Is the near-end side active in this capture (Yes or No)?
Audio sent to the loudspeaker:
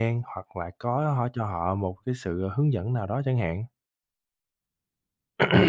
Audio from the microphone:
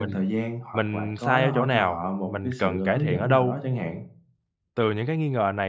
Yes